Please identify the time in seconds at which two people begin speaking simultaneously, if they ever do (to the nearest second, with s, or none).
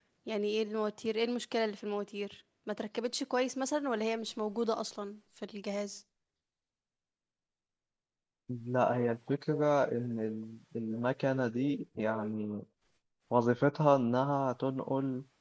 none